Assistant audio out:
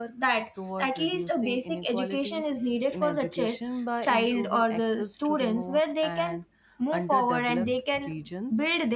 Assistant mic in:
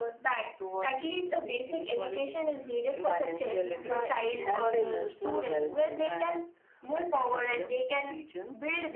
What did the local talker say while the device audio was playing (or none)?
financial literacy, and the emotional well-being.